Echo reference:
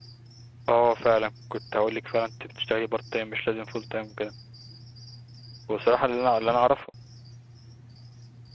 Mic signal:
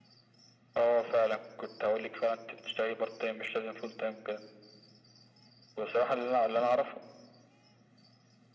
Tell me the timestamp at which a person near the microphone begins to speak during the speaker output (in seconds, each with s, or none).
none